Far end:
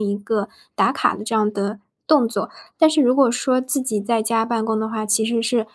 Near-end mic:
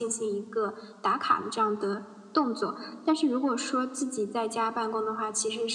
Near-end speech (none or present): none